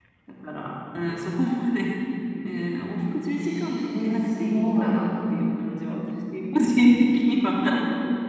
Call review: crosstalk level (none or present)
present